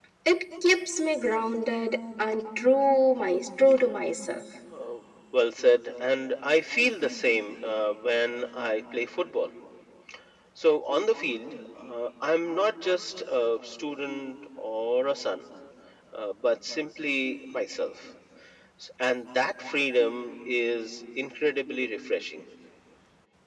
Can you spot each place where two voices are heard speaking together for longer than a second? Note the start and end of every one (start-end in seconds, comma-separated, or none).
none